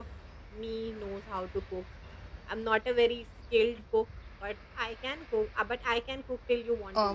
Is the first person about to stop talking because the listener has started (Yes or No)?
Yes